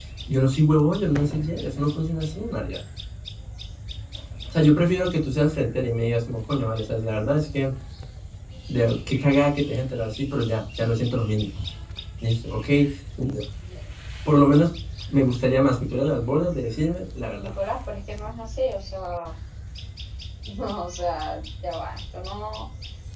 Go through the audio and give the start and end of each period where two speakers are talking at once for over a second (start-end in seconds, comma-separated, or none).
none